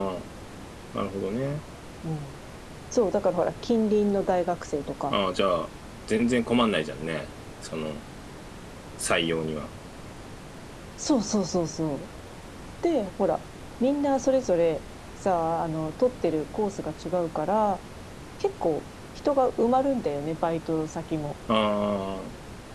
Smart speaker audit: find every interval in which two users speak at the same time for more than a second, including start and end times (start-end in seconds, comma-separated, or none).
none